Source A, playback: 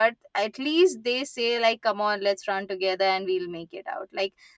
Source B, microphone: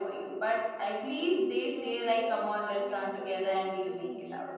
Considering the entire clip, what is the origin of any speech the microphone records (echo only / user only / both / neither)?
both